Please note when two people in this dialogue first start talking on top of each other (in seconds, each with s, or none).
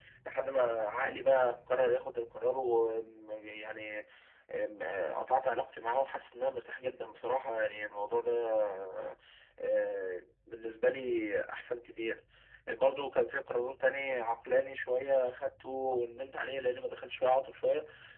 none